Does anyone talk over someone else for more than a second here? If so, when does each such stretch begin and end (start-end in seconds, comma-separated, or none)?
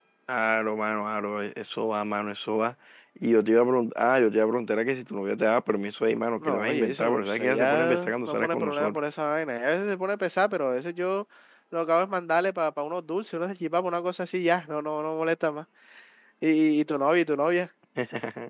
6.4-9.0